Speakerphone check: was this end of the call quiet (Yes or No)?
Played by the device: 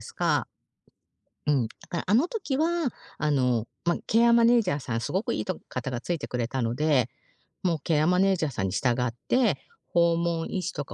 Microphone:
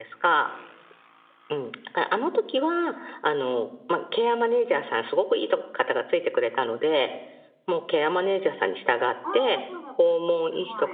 No